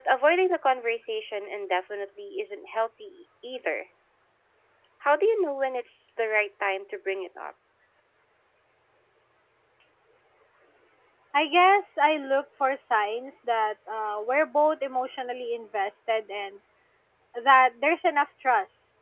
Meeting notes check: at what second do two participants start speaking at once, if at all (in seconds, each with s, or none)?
none